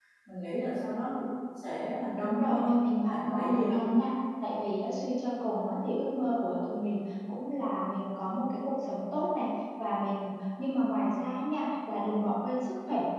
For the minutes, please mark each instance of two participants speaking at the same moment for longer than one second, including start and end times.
2.2-4.0

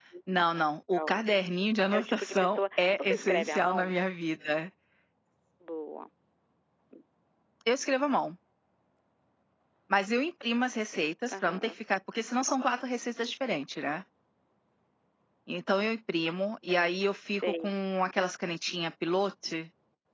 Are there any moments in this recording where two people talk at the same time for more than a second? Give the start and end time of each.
1.9-3.9

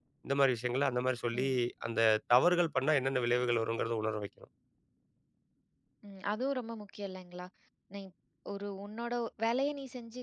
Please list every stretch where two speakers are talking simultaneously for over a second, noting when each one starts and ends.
none

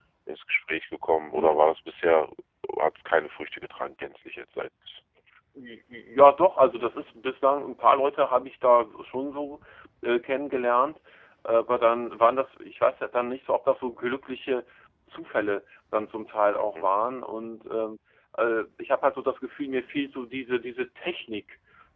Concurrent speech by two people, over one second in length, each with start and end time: none

